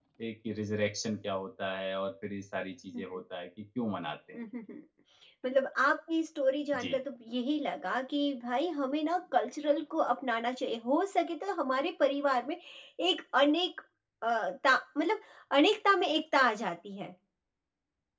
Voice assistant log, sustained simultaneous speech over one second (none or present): none